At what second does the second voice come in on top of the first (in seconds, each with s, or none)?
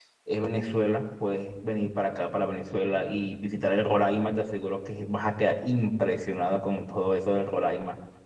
none